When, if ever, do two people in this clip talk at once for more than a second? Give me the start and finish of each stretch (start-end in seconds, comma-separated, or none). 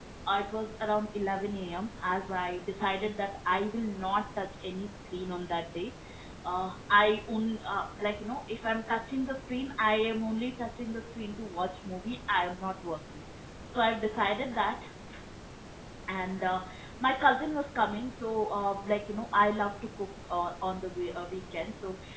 none